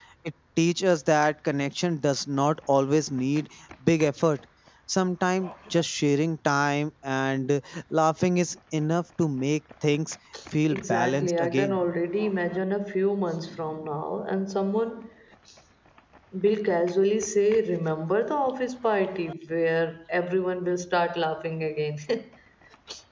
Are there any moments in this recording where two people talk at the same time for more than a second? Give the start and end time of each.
10.7-11.9

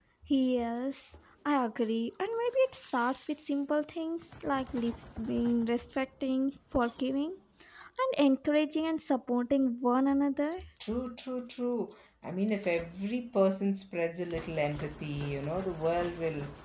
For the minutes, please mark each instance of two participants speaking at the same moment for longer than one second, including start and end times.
none

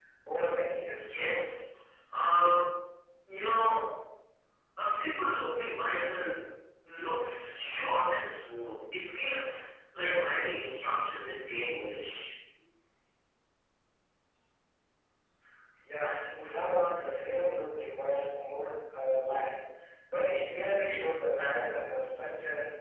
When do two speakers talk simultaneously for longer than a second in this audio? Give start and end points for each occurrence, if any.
none

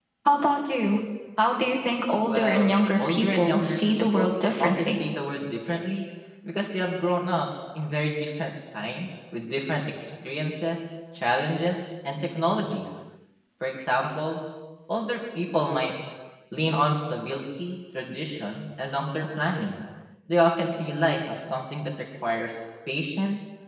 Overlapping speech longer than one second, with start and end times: 2.2-5.0

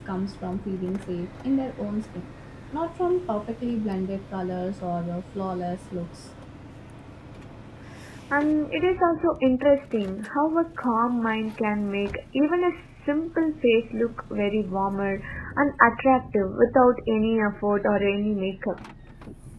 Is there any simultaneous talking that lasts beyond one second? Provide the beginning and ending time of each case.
none

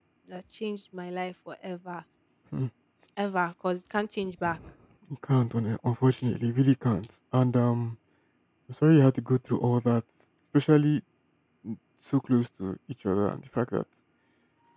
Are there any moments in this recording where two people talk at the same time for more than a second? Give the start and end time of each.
none

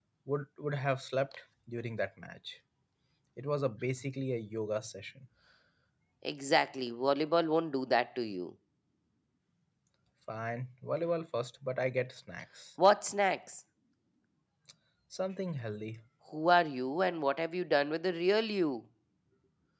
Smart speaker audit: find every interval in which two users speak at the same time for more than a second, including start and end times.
none

